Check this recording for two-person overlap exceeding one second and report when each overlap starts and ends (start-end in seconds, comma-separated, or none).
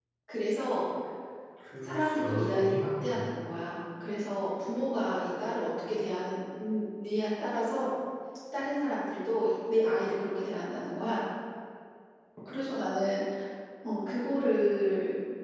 1.8-3.3